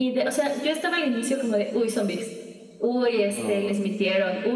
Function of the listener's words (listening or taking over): listening